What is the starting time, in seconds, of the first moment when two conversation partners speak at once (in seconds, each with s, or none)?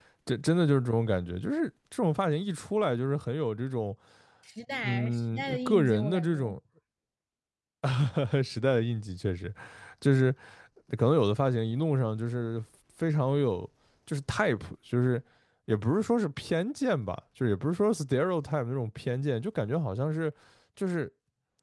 4.8 s